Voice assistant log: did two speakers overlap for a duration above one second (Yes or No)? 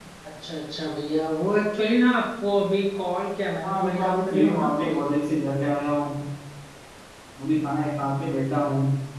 Yes